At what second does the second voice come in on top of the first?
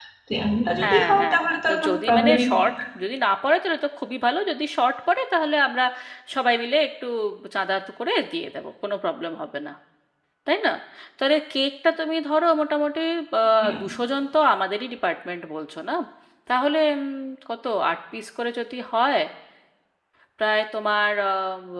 0.8 s

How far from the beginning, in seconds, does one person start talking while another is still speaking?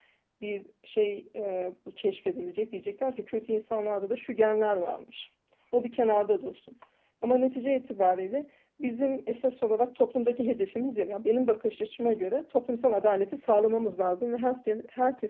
none

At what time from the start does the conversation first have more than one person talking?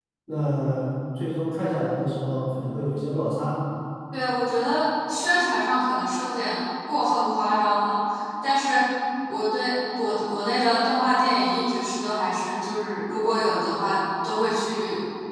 none

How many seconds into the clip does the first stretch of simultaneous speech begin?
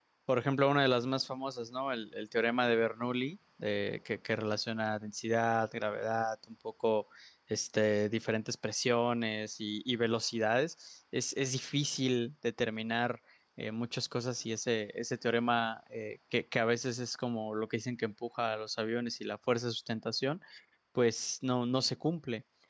none

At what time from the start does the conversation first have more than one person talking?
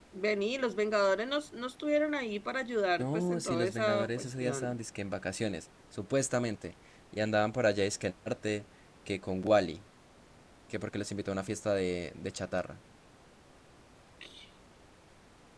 3.0 s

